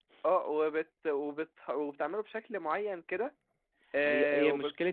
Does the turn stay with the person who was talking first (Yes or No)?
No